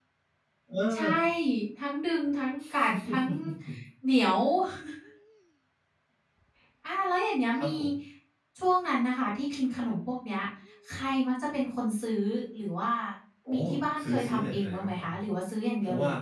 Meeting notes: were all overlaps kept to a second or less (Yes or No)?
No